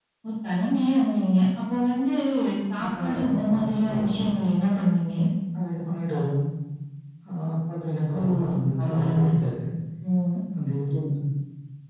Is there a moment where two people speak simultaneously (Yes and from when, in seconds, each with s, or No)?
Yes, from 2.8 s